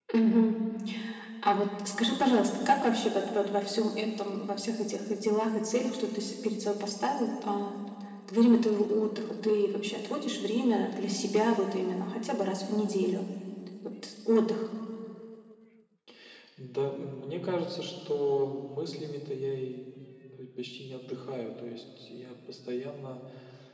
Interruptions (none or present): none